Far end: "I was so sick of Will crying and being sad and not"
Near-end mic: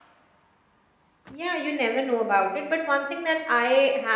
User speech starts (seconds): 1.3 s

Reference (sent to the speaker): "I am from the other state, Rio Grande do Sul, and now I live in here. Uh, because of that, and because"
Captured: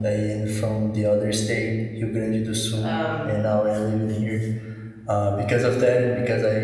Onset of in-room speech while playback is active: 2.8 s

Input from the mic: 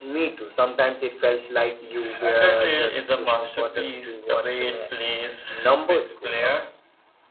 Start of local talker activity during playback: none

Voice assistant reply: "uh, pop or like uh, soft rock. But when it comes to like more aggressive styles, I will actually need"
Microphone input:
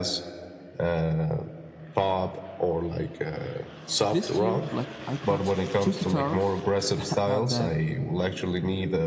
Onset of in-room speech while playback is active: 4.0 s

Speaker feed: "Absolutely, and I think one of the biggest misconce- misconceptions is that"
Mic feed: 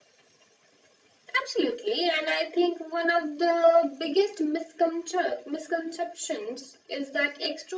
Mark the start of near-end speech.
none

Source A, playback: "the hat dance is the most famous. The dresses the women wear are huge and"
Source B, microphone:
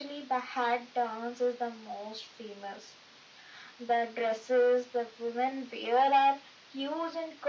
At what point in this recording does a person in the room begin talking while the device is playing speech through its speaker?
none

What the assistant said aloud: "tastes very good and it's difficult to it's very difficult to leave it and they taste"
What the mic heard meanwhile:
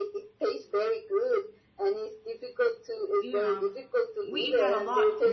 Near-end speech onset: 3.2 s

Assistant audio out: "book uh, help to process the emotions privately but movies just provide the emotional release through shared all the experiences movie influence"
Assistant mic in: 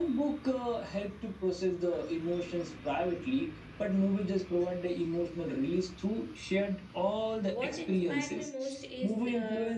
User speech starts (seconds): 7.5 s

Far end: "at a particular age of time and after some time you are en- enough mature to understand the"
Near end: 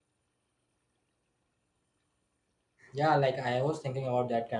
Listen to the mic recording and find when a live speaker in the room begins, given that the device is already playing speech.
2.9 s

